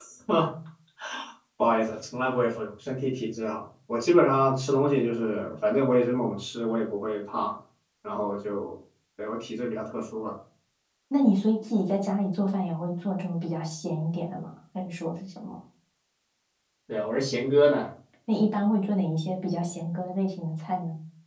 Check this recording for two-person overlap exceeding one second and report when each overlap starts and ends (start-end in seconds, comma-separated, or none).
none